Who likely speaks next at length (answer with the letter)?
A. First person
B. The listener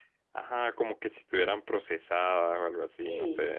B